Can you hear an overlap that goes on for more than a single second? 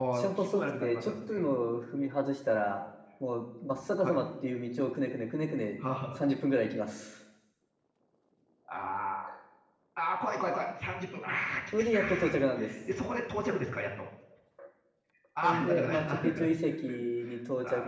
Yes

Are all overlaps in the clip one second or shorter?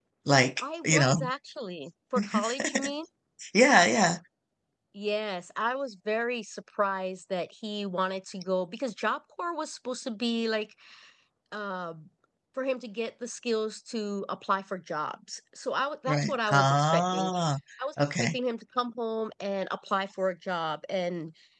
No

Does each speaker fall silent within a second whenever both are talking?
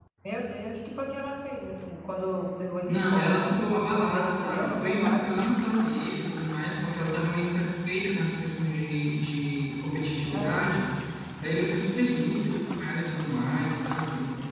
No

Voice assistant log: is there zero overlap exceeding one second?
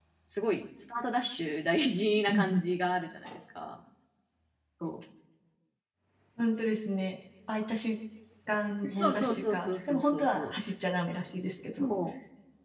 No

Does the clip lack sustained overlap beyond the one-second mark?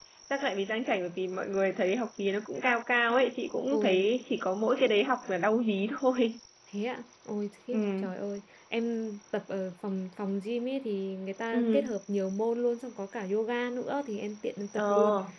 Yes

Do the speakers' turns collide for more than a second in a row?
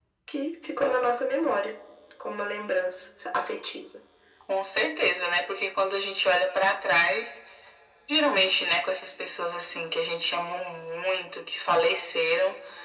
No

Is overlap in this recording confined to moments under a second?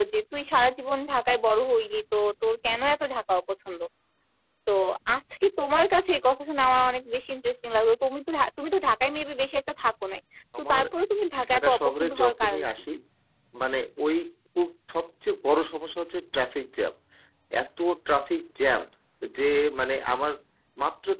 No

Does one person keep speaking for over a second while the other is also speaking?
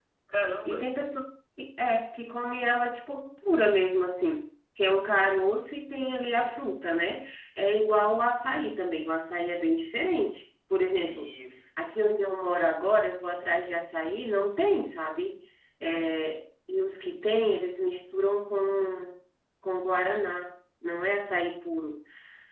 No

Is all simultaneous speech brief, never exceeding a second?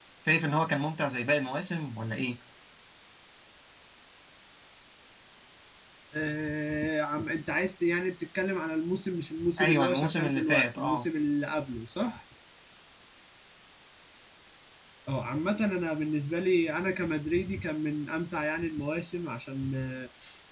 No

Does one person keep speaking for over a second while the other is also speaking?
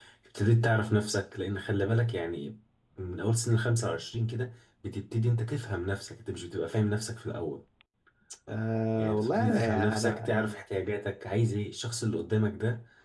Yes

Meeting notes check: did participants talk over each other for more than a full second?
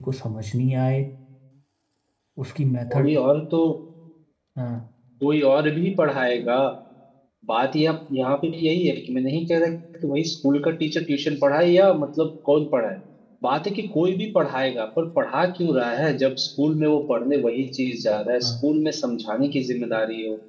No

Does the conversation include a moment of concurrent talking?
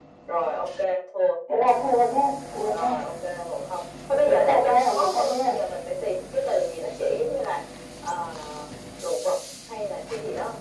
Yes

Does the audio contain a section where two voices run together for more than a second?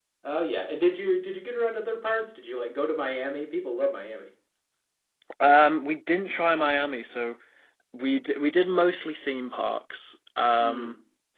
No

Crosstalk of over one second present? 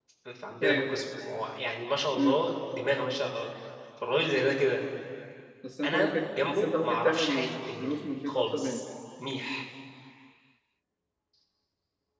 Yes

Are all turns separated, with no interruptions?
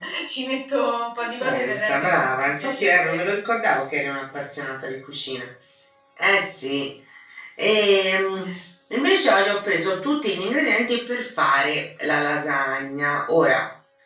No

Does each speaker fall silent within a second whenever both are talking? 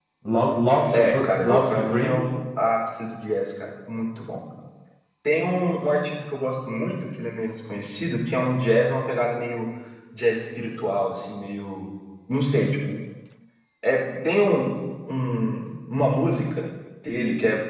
No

